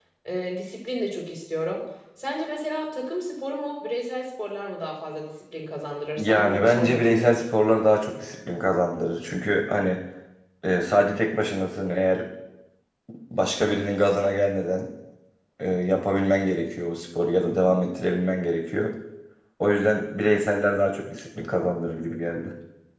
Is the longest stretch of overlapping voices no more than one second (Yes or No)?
No